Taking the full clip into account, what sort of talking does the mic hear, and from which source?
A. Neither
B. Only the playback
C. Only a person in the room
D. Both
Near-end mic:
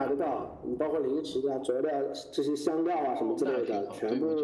D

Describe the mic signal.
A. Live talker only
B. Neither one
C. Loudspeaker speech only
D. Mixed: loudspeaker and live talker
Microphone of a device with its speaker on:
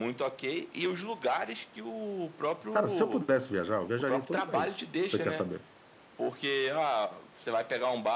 D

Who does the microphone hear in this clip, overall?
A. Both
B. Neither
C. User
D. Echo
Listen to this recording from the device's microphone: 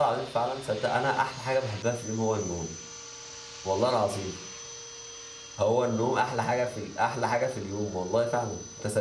C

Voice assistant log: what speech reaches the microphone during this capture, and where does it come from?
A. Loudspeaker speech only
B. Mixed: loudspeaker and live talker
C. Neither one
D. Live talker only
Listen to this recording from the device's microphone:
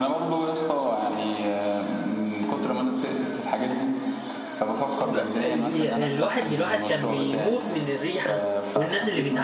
B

